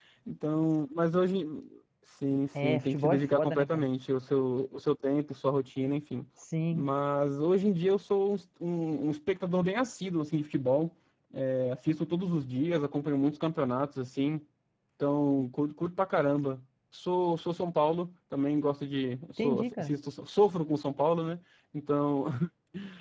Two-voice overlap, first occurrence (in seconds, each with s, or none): 2.6 s